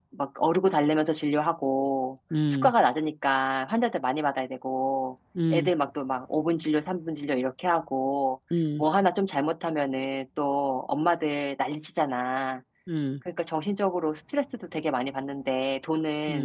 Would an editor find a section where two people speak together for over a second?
No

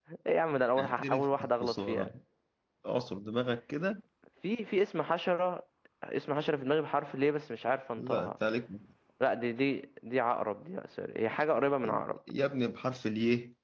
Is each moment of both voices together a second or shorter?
No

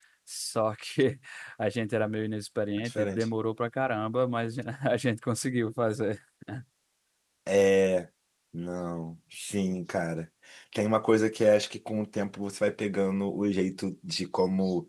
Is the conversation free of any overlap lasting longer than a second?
Yes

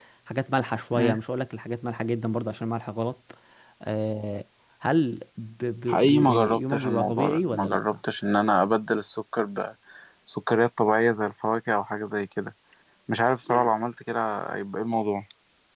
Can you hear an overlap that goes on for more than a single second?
Yes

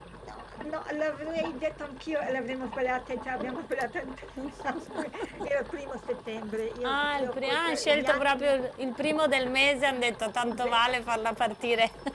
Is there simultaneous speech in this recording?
Yes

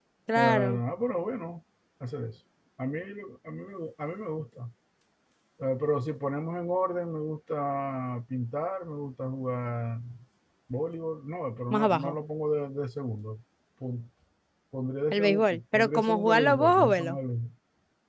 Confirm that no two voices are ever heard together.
No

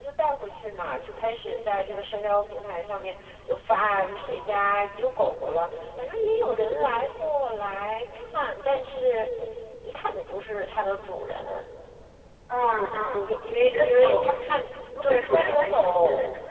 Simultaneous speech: Yes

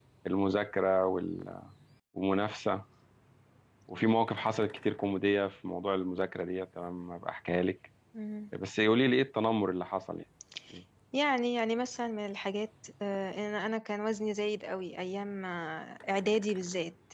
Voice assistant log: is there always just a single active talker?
Yes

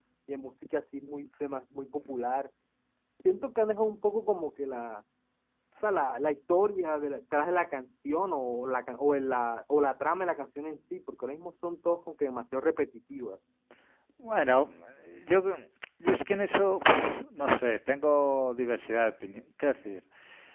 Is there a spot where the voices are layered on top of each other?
No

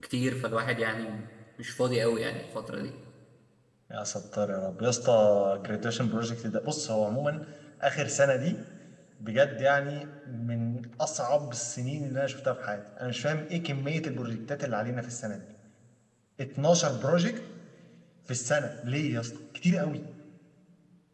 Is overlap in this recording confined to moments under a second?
Yes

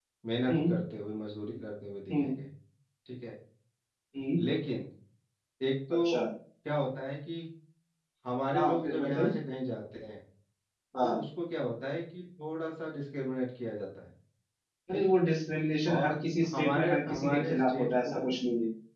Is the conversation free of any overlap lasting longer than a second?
No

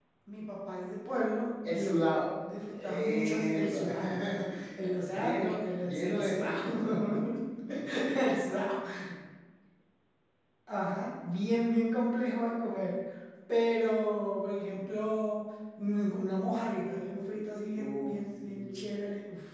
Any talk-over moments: Yes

